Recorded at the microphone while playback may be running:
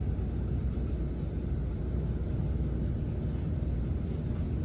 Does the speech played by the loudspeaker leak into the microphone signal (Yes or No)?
No